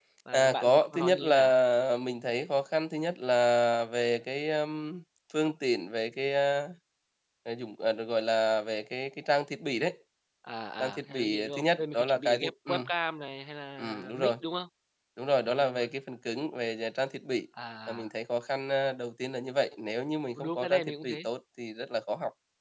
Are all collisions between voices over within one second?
No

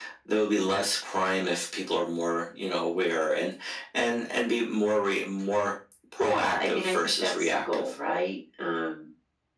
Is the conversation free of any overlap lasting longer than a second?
No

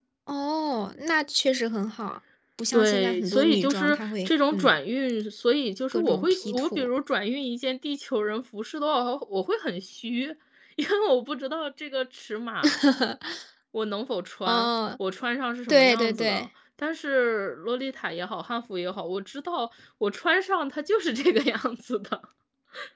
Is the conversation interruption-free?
No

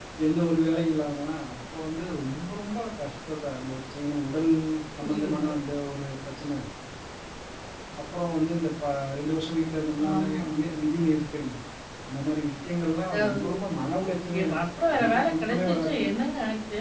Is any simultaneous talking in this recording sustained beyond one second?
Yes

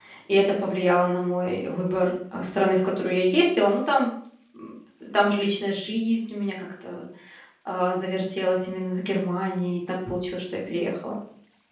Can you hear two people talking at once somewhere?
No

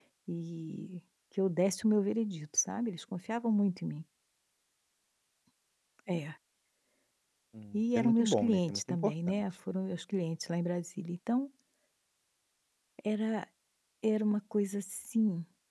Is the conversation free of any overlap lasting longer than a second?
No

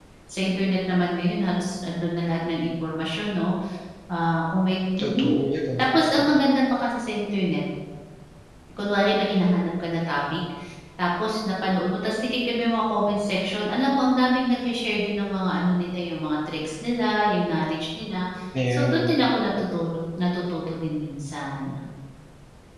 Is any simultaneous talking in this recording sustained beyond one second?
No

